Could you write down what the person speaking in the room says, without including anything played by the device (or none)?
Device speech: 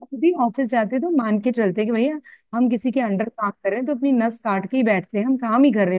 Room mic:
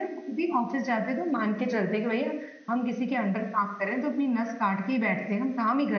none